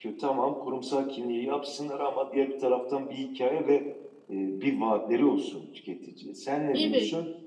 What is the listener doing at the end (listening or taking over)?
taking over